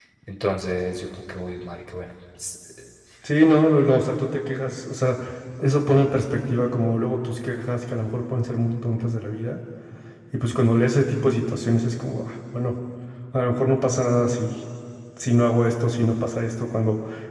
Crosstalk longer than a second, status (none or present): none